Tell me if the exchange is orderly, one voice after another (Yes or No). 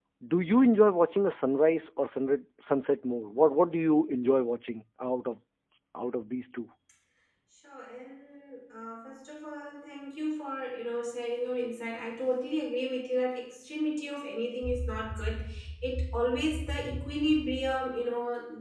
Yes